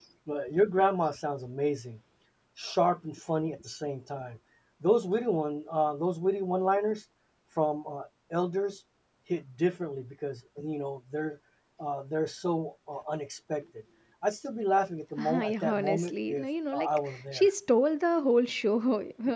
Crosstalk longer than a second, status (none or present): present